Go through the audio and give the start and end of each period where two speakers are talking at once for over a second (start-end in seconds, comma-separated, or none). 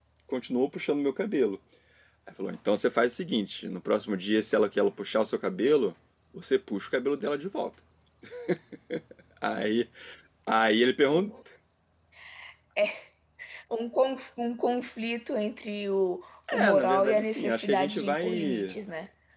16.5-18.8